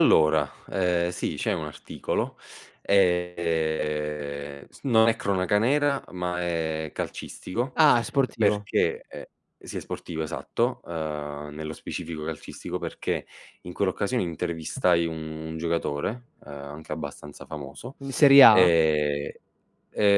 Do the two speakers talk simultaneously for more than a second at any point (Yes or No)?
No